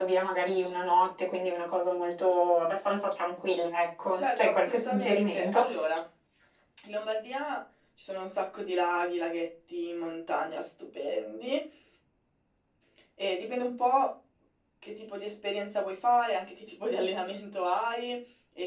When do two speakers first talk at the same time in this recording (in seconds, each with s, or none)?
4.2 s